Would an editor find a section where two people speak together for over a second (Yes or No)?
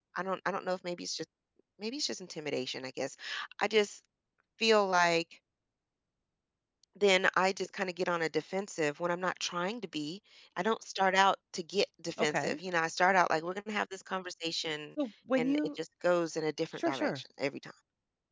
No